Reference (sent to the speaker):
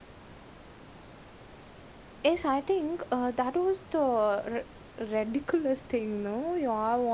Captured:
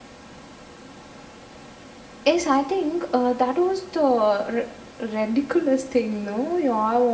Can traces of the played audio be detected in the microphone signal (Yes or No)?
Yes